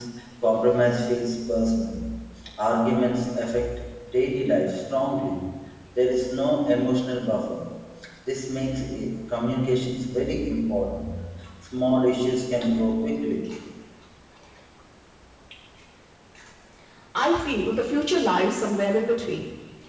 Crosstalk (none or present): none